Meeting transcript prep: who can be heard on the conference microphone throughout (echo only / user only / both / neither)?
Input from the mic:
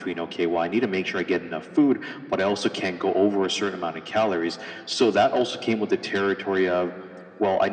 echo only